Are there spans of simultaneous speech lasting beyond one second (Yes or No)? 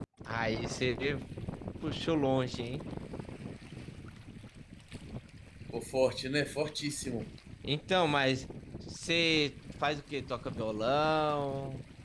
No